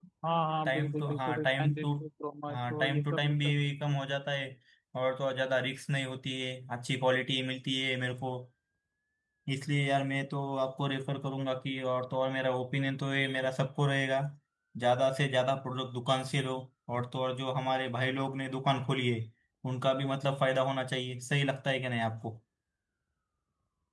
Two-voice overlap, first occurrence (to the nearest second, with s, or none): 1 s